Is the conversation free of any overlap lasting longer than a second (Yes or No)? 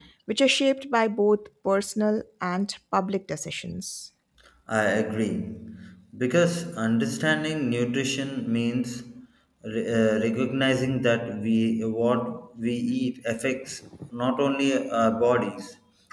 Yes